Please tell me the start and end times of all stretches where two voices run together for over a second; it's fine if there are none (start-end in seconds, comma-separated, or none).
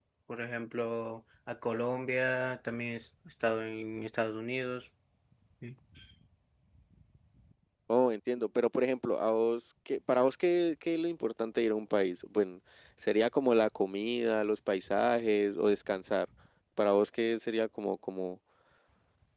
none